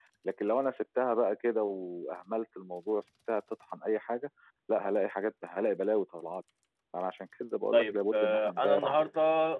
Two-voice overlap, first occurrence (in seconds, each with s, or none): 7.7 s